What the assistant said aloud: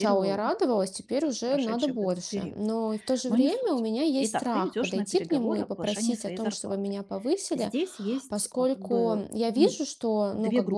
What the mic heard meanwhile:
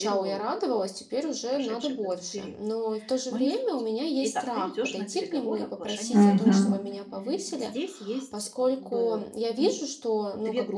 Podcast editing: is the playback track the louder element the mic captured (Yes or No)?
No